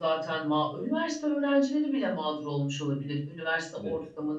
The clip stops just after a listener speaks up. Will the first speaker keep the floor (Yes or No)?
Yes